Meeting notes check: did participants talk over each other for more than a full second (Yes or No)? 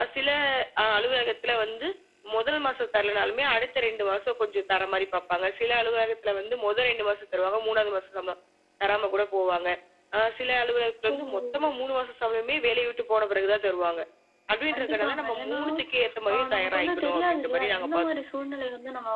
Yes